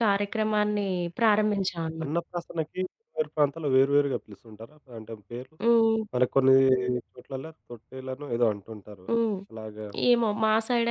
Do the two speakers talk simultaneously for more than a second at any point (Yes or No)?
No